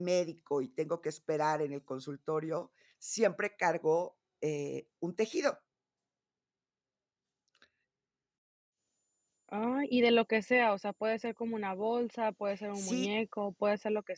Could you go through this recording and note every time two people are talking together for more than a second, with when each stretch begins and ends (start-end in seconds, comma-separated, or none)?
none